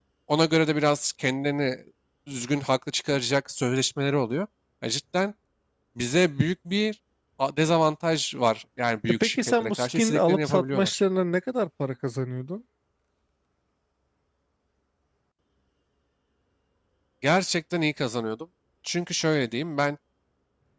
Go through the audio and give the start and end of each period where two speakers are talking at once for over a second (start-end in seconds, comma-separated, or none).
9.1-11.0